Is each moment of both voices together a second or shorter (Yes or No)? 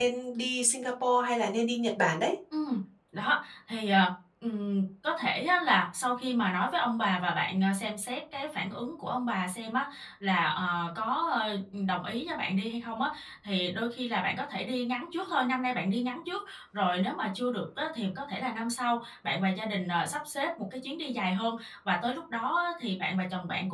Yes